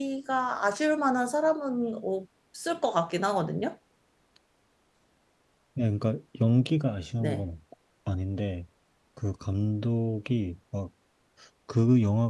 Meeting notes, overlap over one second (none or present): none